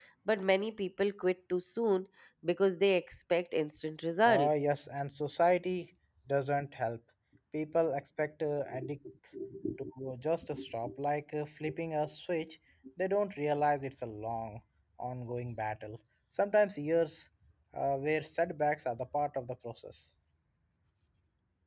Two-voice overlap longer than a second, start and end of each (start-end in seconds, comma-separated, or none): none